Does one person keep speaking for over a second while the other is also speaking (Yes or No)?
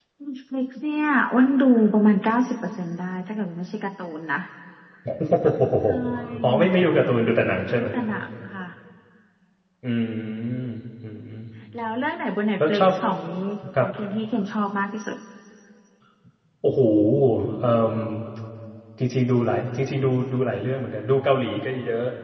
No